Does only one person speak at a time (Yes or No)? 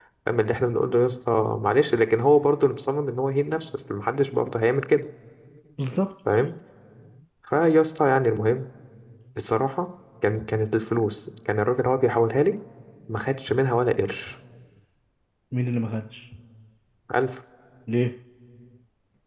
Yes